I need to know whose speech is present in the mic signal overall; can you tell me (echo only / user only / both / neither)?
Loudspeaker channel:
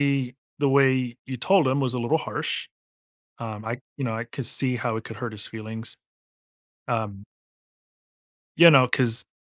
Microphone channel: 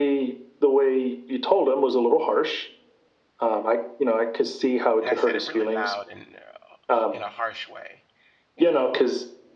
both